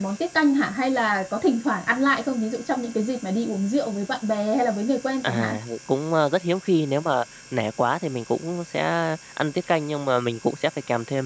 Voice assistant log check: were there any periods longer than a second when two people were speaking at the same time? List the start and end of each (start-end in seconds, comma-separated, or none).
none